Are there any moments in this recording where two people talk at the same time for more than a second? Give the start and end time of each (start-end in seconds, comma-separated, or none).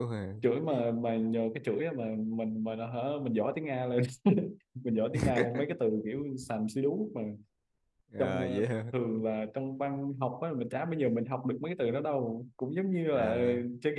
none